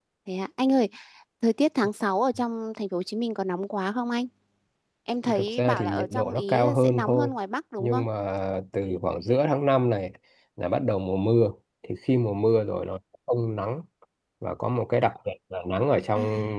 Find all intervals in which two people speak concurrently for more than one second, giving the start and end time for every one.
5.3-7.3

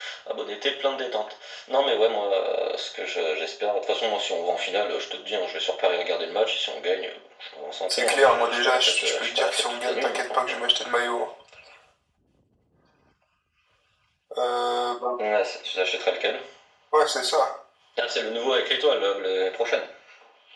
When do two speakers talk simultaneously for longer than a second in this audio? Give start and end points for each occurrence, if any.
7.9-10.6

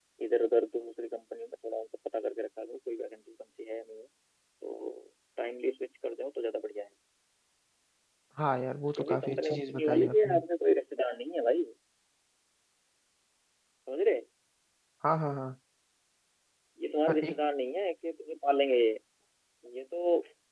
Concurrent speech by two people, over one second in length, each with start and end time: 9.0-10.4

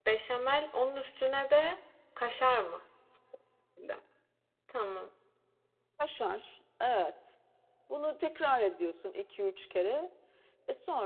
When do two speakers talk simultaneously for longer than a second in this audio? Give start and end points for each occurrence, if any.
none

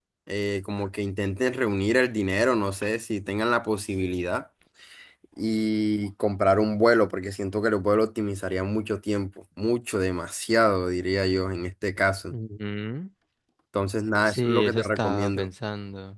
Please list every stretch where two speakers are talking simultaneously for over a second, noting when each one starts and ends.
14.3-15.5

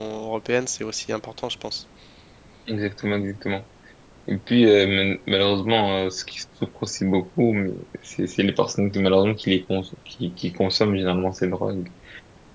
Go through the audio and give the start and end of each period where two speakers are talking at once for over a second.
none

